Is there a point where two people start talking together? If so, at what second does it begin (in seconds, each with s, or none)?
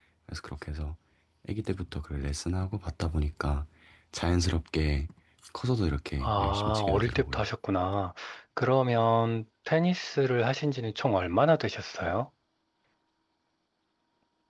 6.2 s